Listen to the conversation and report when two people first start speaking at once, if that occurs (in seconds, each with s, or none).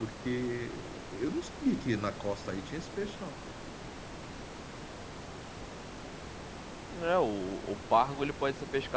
none